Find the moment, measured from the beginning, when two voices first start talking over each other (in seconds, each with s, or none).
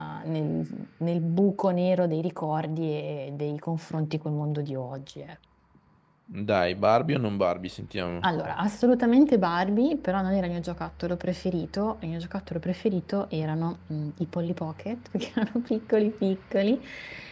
none